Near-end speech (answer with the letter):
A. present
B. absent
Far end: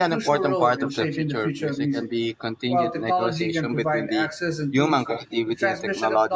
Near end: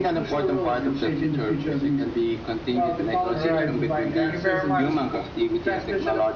A